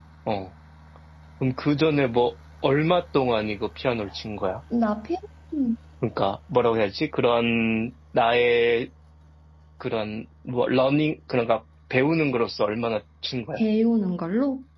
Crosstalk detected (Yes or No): No